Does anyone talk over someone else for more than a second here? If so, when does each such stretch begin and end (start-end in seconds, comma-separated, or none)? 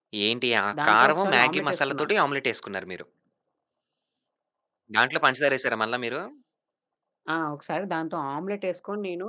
0.8-2.1